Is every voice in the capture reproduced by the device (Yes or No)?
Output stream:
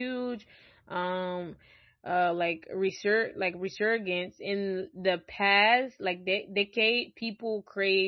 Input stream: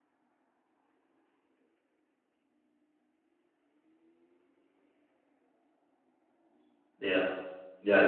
No